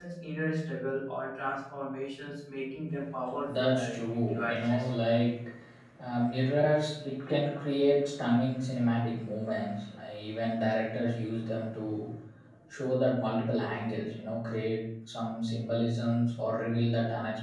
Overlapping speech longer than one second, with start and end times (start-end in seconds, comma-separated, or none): 3.5-4.9